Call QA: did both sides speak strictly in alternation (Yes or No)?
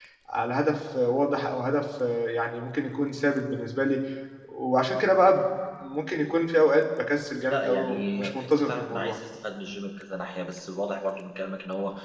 No